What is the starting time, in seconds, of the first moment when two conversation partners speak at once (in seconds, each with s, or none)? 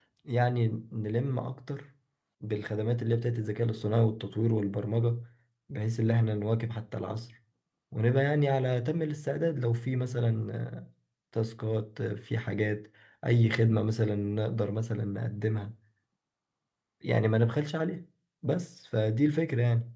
none